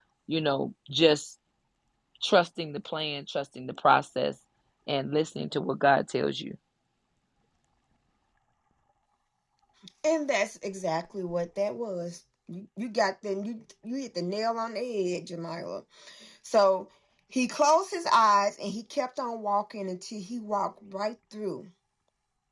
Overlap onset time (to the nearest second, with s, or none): none